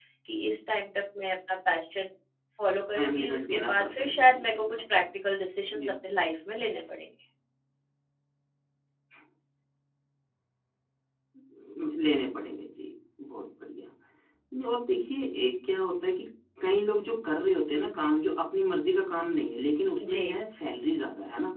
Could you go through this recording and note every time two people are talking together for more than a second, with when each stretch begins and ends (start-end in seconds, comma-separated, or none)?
2.9-5.0